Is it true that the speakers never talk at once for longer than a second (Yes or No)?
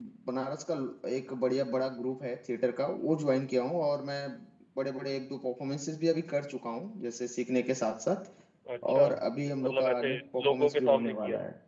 No